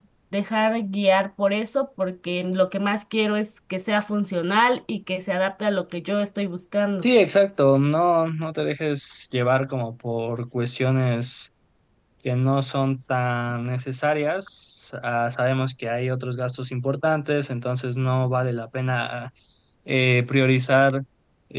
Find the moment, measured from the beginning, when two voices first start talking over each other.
none

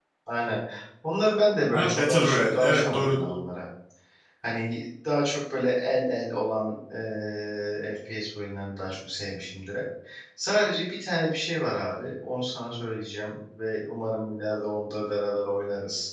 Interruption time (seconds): 1.7 s

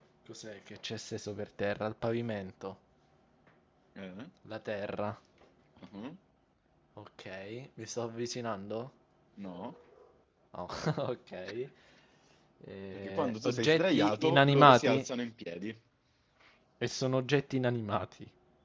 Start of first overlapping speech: 12.9 s

